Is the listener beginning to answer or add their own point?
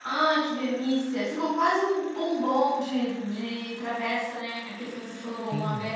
Yes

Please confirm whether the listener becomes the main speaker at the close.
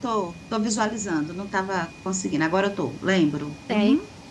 Yes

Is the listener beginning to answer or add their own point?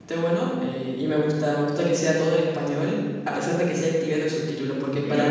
No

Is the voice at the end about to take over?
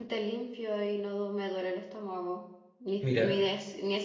No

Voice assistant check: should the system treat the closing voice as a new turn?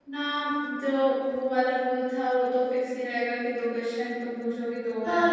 Yes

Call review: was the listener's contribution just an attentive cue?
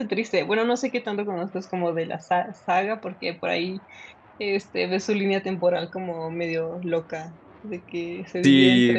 No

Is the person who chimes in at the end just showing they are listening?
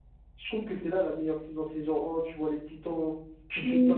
Yes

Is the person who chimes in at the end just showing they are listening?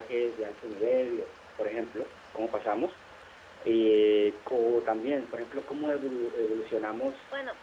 Yes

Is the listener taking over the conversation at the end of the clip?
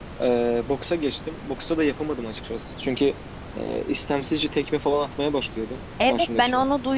Yes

